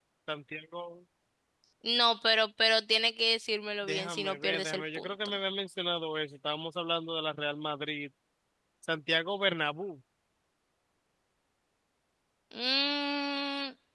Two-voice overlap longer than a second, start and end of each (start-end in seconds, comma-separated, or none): 3.9-5.1